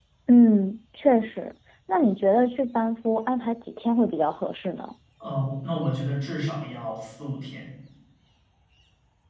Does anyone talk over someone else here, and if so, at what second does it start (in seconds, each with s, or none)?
none